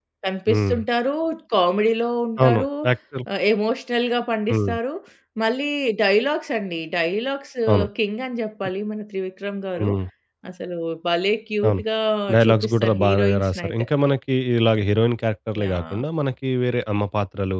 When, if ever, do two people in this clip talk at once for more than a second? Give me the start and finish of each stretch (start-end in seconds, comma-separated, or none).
12.4-13.9